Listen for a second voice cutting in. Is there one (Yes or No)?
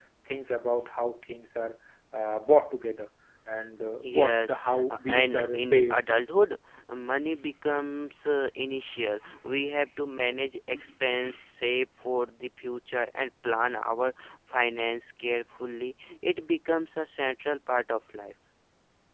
Yes